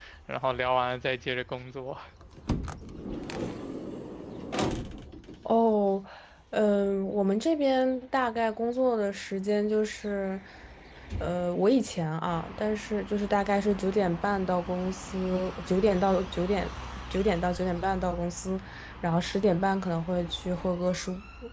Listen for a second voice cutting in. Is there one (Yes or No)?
No